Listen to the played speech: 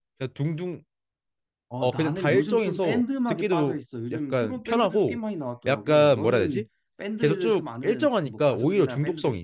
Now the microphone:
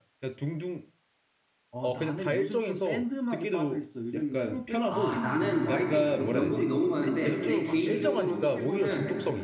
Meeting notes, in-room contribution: present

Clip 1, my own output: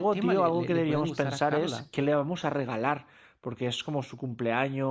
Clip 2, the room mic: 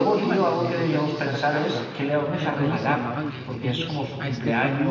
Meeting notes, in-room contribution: present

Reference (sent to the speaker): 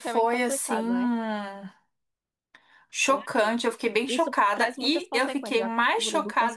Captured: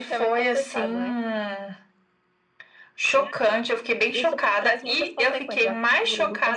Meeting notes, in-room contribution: none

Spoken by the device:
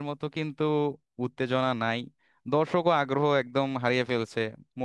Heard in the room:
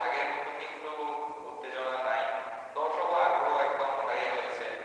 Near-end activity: none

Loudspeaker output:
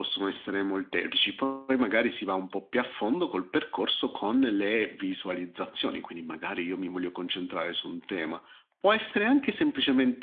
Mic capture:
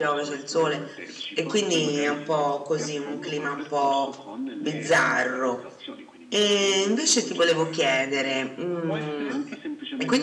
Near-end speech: present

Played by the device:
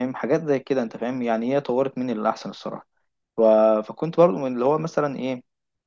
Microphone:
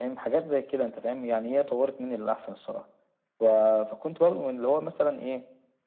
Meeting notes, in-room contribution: none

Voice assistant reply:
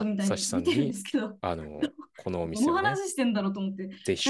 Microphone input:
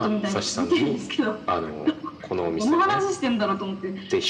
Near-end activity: none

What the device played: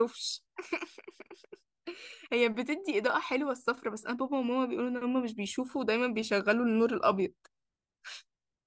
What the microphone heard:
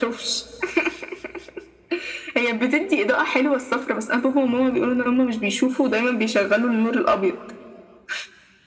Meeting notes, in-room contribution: none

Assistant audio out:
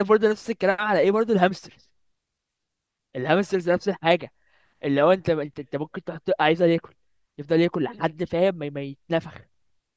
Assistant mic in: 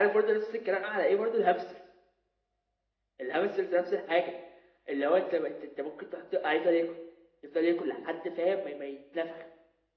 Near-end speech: none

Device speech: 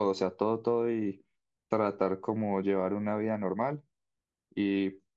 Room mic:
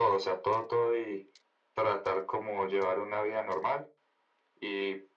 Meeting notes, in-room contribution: none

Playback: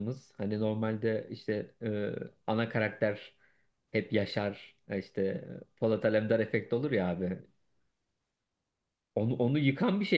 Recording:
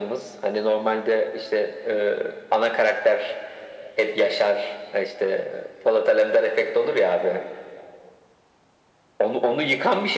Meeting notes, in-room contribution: none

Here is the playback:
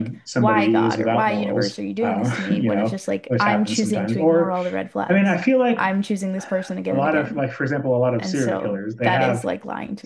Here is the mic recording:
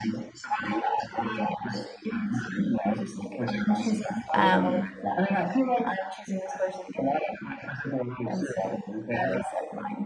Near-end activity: present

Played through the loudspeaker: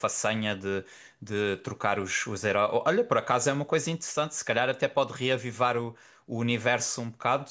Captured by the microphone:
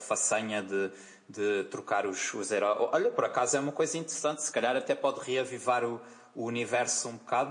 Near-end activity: none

